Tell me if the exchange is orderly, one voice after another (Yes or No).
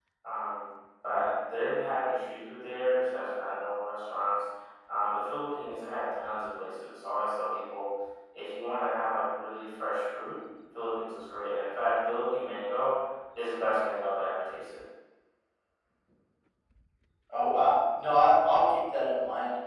Yes